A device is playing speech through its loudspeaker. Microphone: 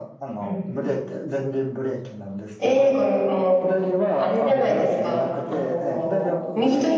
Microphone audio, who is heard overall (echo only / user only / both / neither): both